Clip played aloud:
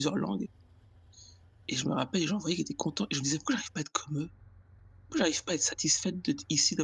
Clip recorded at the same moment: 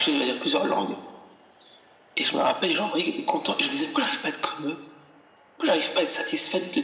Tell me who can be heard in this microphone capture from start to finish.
echo only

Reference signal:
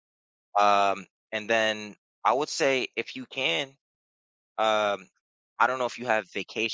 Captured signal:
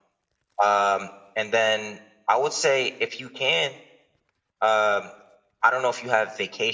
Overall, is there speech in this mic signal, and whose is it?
echo only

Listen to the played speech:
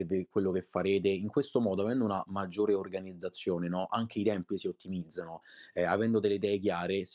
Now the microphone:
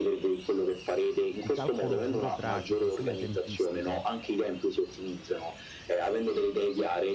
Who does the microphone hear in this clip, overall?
both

